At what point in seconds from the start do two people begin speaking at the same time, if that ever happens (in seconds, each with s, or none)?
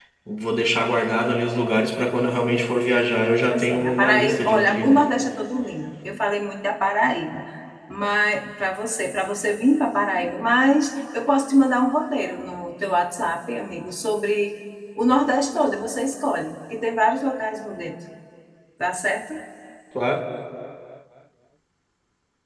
3.5 s